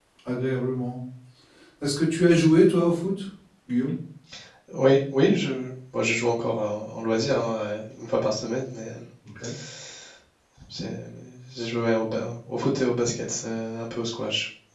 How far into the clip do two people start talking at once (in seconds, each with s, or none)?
none